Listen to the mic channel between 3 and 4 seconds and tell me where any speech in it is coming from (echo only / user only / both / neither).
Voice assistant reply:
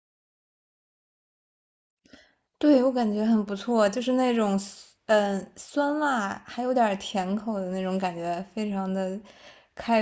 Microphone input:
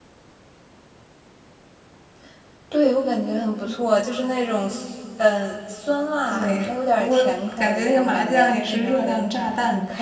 echo only